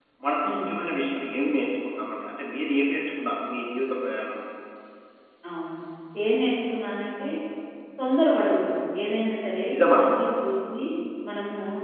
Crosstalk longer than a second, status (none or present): none